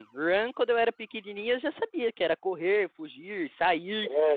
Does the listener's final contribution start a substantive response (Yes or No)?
No